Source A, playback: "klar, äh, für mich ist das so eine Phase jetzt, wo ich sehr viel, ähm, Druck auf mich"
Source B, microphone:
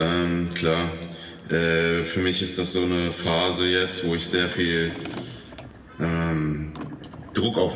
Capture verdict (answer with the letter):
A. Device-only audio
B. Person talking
A